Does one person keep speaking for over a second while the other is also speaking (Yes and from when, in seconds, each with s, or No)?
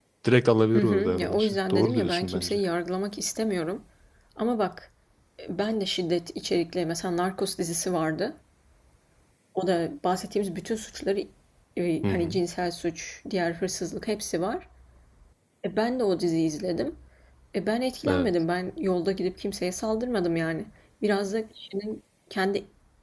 Yes, from 0.7 s